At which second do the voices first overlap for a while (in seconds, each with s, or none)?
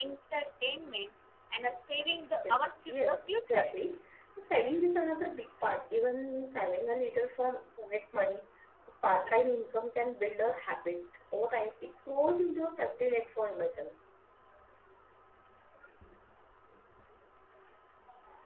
2.4 s